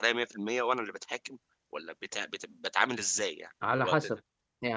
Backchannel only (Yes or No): No